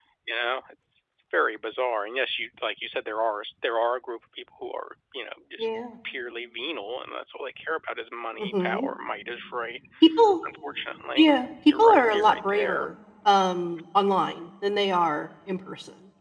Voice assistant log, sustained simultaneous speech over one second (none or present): present